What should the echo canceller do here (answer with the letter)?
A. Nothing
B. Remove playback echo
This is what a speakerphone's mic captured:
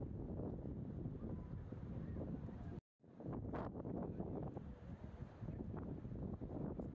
A